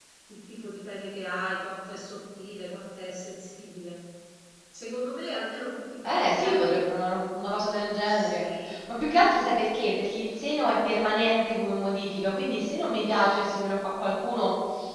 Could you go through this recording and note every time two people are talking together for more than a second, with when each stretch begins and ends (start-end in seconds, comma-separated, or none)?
none